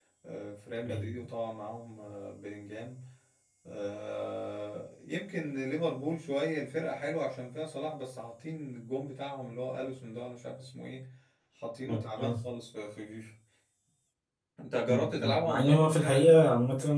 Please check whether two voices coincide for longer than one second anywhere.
Yes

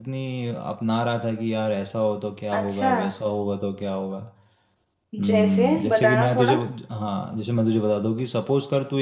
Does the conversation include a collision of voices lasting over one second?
Yes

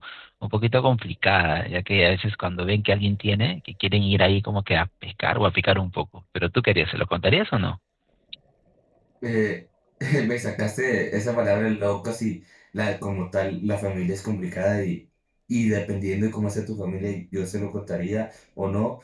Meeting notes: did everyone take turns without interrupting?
Yes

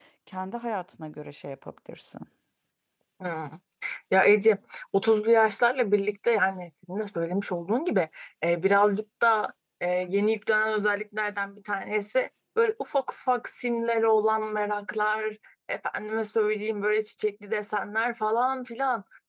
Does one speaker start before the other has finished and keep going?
No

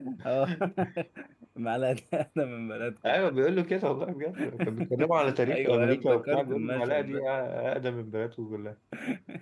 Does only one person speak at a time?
No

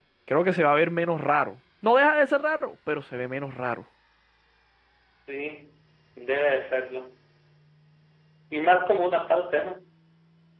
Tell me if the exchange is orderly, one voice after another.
Yes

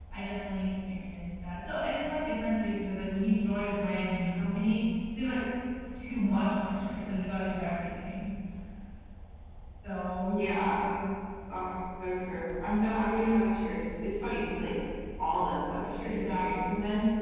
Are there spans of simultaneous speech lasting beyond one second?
No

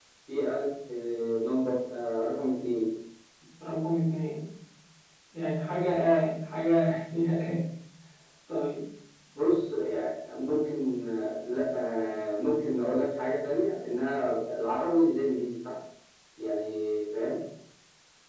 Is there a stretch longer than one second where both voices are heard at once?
No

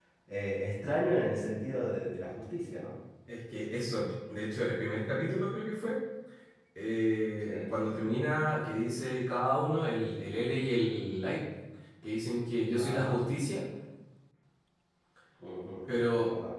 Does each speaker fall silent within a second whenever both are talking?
Yes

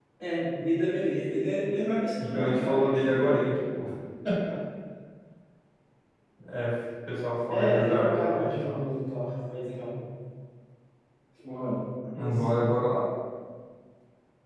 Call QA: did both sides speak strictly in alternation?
No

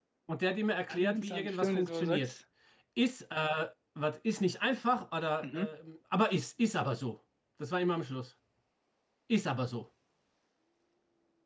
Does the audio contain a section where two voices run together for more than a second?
Yes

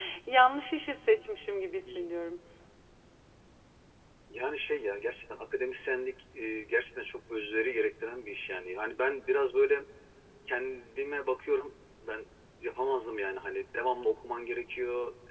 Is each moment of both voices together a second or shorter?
Yes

